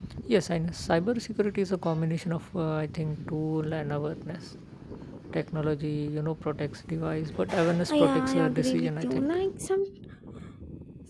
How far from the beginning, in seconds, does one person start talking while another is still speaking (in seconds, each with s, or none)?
7.9 s